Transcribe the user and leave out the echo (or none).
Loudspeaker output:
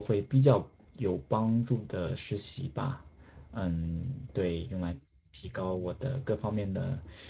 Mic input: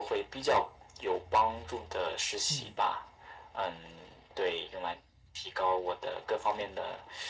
嗯，